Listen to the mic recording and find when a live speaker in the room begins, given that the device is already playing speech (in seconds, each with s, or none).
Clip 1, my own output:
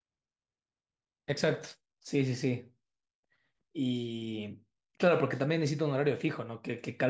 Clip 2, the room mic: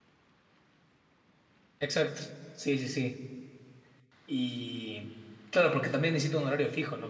none